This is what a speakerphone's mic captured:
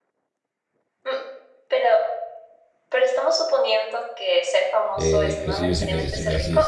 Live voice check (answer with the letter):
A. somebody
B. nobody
A